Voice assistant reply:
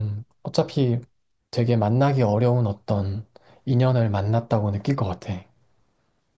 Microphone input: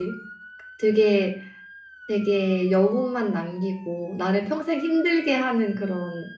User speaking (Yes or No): Yes